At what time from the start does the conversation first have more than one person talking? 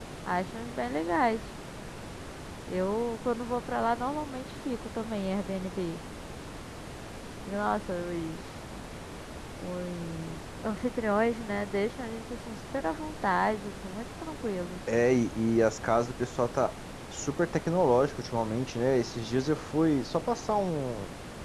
none

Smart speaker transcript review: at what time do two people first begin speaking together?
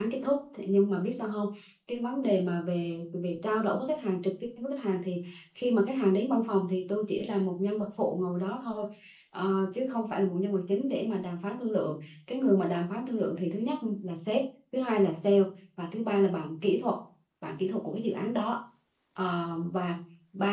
none

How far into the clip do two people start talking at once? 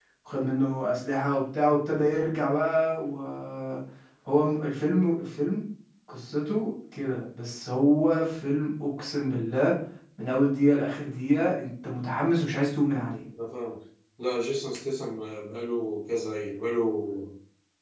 none

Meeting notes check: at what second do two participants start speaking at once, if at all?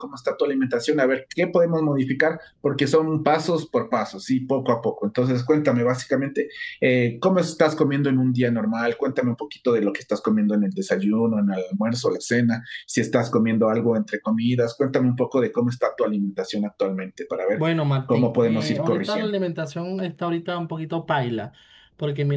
18.1 s

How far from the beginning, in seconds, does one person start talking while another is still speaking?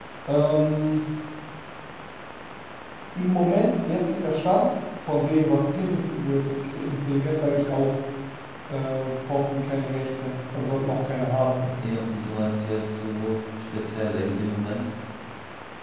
none

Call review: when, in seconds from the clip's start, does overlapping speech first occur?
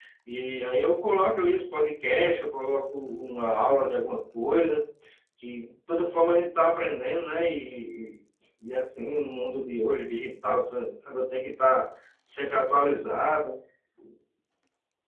none

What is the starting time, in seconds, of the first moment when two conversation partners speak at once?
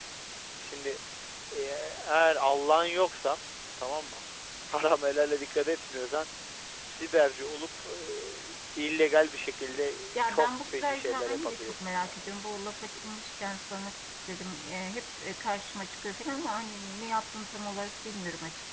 10.2 s

